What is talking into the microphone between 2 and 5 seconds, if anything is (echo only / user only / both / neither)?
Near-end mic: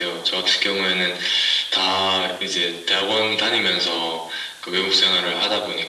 echo only